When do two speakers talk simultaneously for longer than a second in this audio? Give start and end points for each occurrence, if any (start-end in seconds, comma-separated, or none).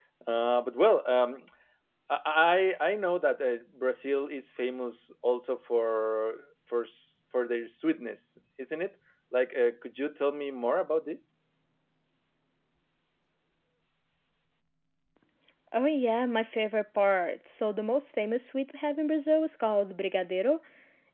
none